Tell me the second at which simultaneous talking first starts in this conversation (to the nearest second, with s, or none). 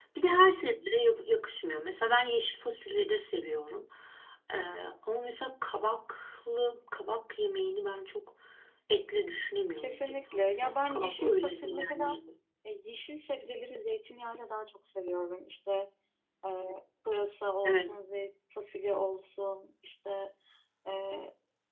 10 s